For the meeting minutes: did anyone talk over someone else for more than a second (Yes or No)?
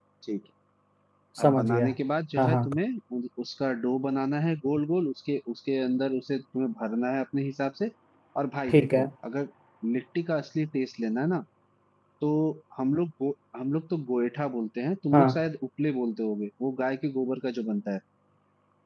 No